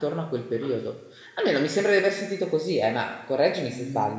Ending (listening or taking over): taking over